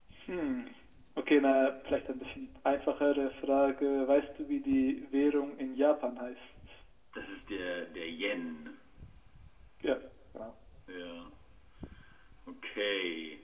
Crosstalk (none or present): none